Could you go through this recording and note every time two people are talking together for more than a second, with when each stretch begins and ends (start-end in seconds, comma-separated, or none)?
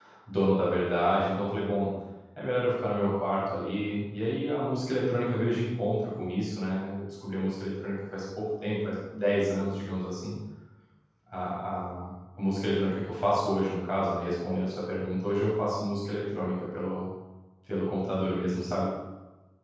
none